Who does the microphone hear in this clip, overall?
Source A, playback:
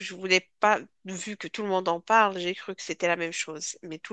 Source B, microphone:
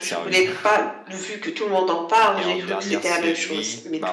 both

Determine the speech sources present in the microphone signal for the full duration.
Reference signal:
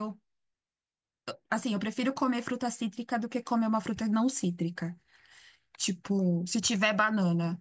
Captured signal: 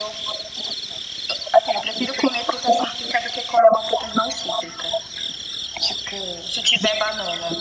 echo only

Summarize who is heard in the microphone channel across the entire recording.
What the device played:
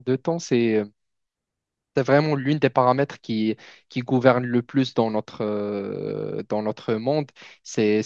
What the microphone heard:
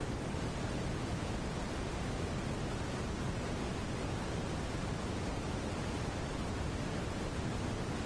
neither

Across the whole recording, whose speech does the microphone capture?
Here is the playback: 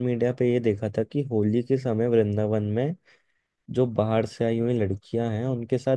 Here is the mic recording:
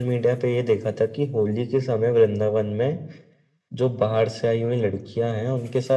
echo only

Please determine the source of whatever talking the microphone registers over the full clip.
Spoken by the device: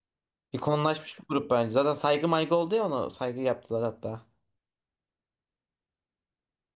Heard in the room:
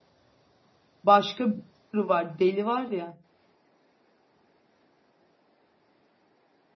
user only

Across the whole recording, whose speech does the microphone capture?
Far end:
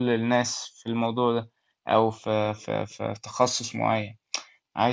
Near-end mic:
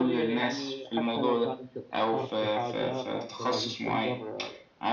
both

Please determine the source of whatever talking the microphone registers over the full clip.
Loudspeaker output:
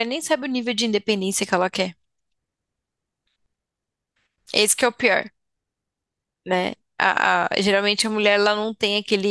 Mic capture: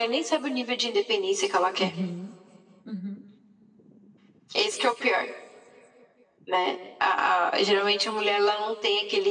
both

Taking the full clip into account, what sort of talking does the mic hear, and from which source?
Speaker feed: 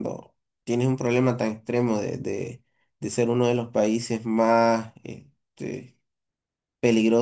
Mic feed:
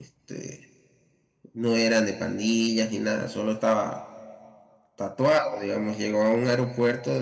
user only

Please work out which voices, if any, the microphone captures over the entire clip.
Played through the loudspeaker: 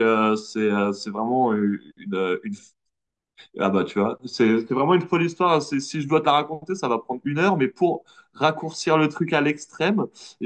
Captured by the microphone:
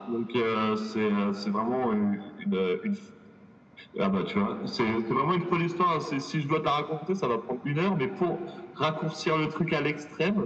echo only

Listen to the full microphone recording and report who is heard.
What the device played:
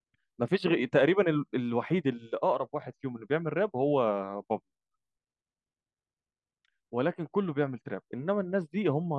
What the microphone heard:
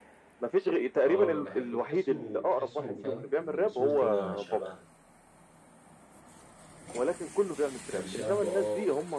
both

